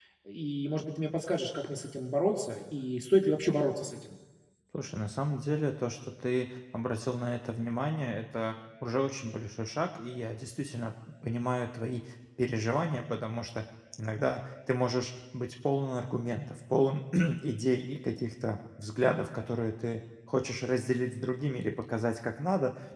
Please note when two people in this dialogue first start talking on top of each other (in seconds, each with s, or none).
none